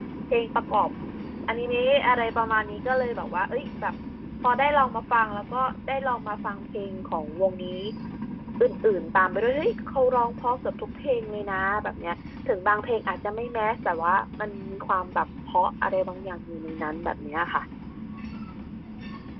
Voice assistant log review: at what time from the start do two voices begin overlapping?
none

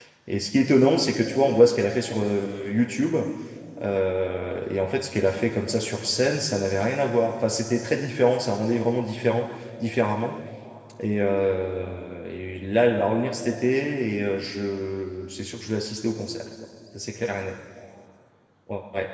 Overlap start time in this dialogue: none

